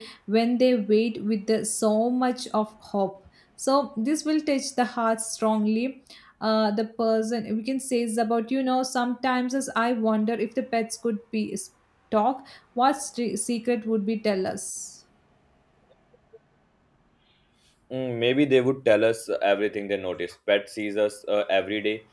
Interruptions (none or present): none